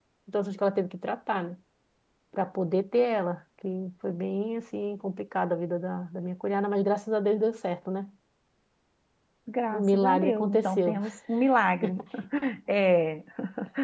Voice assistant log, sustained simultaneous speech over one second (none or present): present